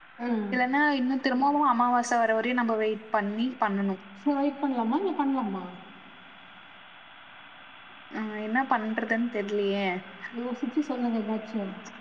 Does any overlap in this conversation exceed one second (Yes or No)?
No